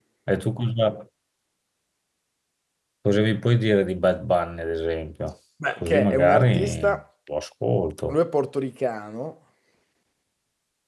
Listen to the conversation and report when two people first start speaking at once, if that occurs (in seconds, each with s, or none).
5.8 s